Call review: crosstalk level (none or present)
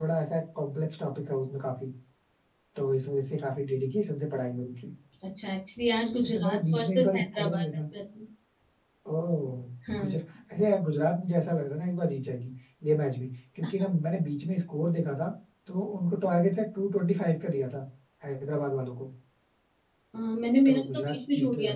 present